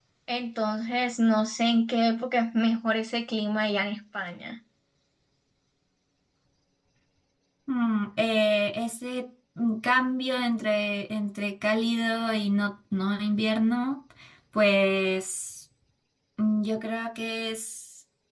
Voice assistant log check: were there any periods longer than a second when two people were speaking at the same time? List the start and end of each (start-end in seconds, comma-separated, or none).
none